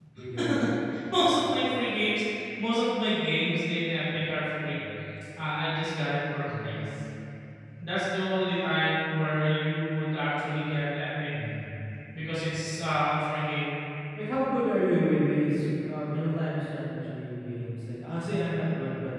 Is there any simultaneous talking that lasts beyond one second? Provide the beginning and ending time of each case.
none

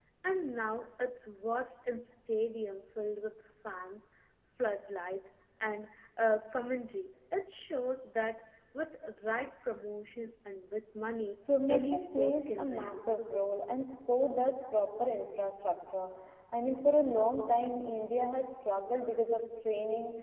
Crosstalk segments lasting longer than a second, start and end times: 11.7-13.2

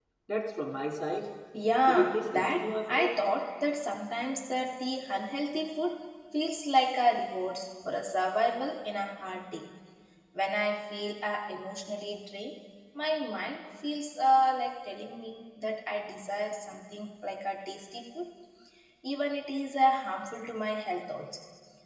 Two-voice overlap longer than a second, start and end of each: 1.9-3.1

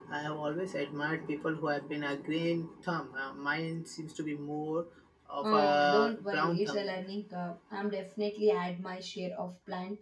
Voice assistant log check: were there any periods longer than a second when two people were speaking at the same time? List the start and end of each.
5.4-7.0

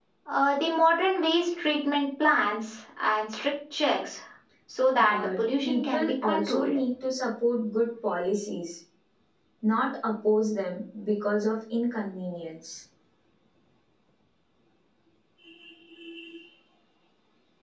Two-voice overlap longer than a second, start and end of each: 5.0-6.8

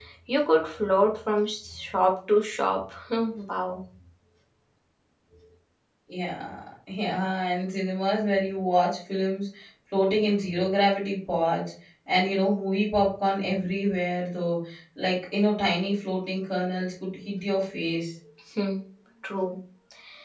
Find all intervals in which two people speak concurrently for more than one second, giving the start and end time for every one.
none

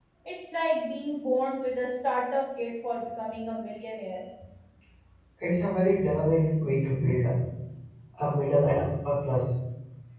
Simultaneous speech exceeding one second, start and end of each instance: none

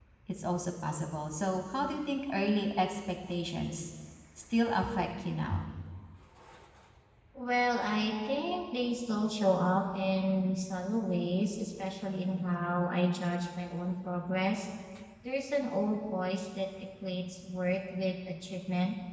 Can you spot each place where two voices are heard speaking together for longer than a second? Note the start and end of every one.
none

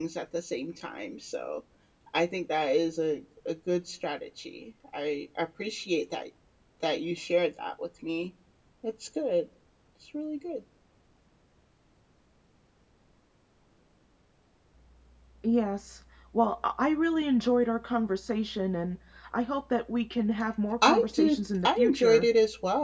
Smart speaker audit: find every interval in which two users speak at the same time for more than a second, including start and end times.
20.8-22.3

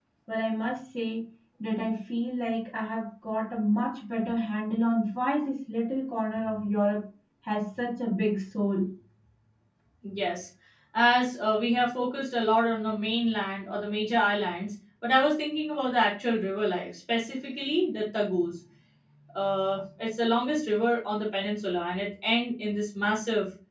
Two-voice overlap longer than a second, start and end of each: none

